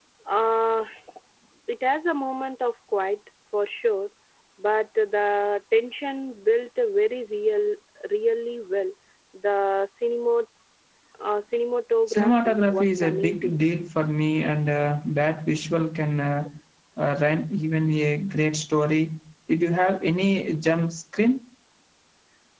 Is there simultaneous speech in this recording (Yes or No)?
Yes